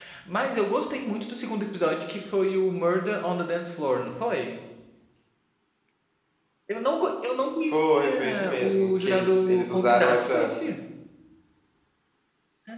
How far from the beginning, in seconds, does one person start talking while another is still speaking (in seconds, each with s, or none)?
7.7 s